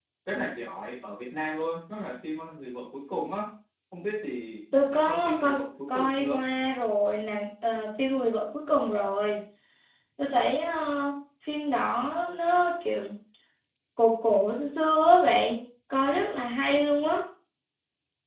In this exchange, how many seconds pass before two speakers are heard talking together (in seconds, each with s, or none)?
4.7 s